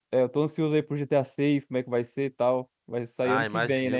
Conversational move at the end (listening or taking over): taking over